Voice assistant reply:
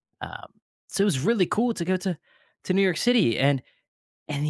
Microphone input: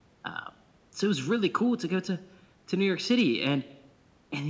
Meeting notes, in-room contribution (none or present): none